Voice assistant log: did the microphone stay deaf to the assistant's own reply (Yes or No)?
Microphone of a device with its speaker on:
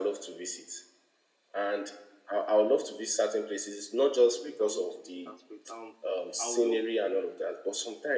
No